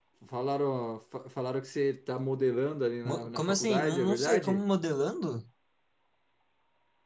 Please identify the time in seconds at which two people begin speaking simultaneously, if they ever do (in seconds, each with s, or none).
3.0 s